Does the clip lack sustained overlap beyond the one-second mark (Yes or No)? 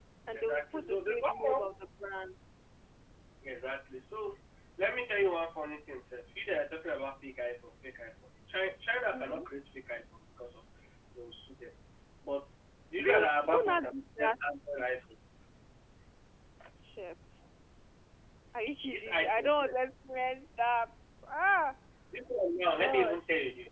No